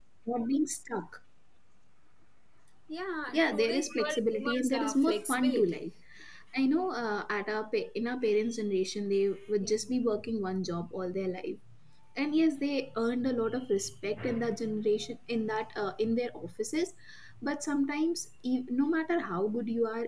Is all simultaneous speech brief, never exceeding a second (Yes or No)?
No